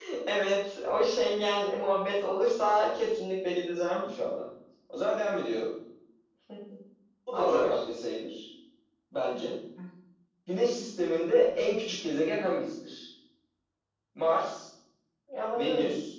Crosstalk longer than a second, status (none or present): none